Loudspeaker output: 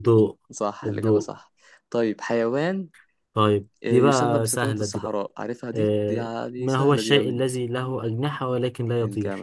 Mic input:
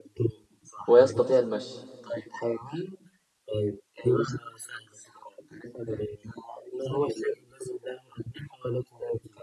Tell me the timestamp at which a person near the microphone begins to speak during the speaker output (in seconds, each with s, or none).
0.9 s